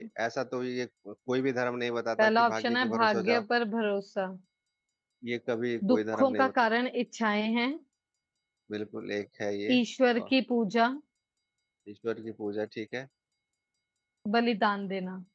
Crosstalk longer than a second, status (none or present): present